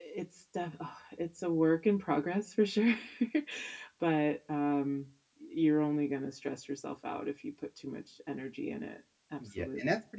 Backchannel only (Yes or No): No